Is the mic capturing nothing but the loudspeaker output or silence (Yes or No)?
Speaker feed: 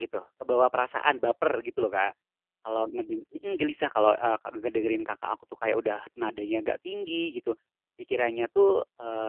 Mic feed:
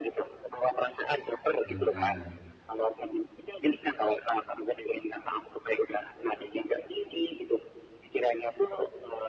No